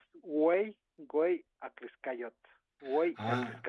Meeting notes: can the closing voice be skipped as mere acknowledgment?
No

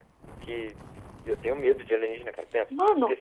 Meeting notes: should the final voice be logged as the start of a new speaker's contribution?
No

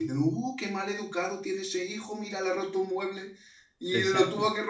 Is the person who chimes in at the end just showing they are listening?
Yes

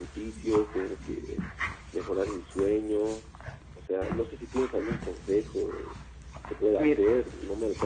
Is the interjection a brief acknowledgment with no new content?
Yes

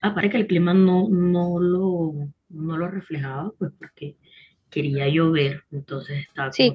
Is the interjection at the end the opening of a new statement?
Yes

